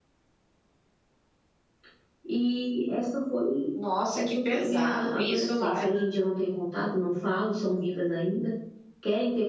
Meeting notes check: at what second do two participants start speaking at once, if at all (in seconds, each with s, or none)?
4.1 s